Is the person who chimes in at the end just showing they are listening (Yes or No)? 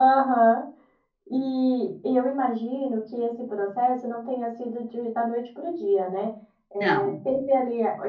Yes